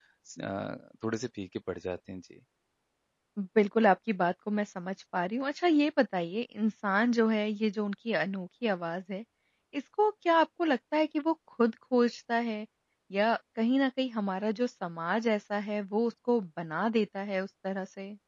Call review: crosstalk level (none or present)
none